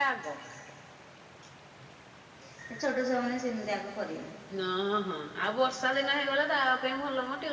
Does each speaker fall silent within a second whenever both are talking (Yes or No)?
Yes